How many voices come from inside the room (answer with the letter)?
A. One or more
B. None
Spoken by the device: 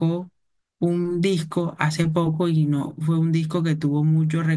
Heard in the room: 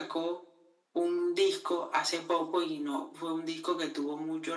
B